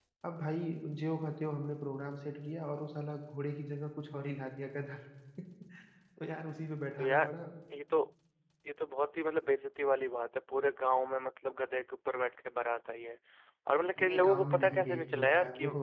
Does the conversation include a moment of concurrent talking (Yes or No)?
Yes